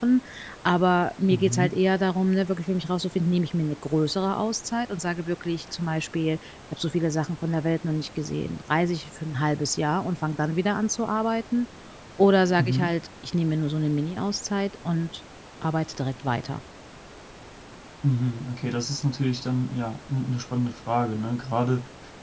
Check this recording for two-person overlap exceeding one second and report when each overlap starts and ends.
none

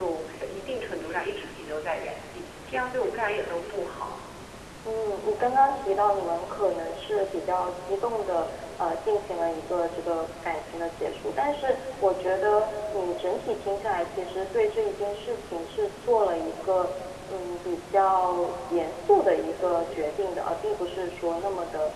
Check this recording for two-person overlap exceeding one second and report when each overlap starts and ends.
none

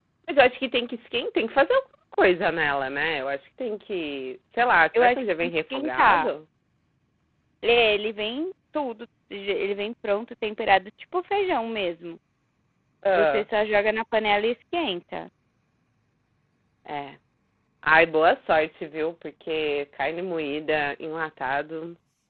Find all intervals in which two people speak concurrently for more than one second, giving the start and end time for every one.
5.0-6.3

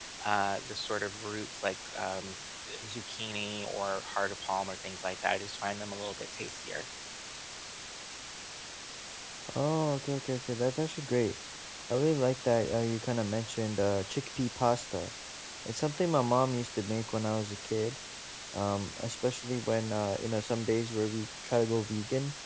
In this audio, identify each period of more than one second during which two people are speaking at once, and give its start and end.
none

